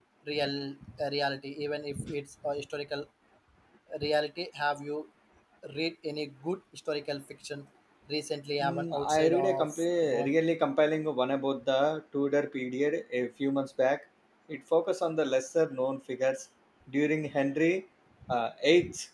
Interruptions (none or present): present